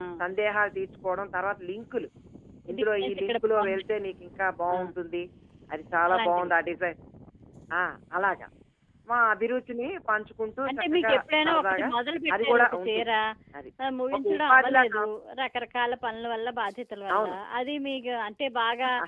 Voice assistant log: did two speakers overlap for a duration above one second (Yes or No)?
Yes